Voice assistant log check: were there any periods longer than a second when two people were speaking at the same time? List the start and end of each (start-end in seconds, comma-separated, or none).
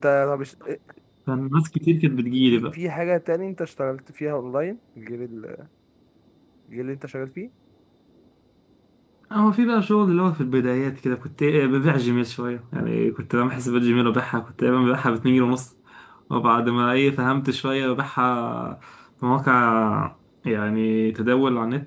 none